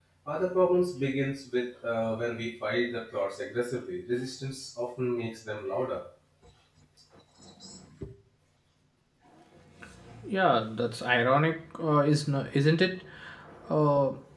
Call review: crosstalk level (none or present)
none